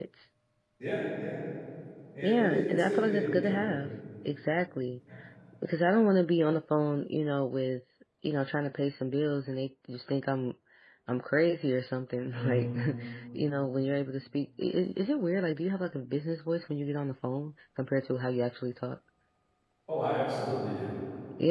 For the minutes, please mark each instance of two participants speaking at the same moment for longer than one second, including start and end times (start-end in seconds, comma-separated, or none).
2.2-3.8